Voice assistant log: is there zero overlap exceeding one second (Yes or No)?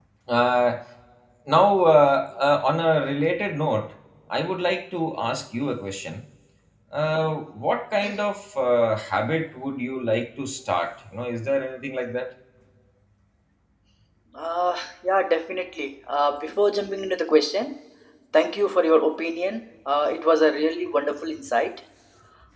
Yes